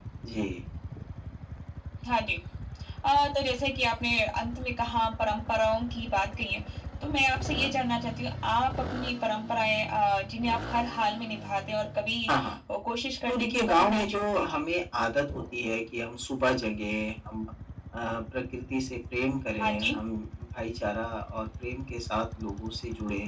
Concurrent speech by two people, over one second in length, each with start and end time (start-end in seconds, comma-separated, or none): 13.3-14.7